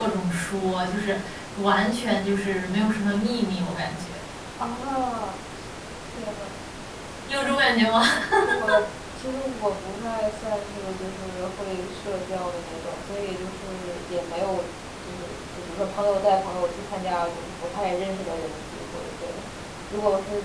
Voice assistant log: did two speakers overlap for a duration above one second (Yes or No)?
No